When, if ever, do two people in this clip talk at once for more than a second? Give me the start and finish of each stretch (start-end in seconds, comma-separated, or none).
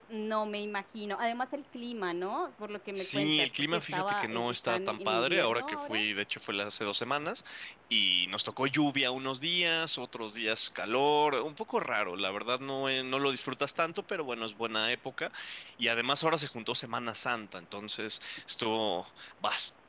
2.9-6.0